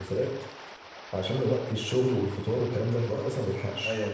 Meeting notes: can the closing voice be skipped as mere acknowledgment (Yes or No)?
No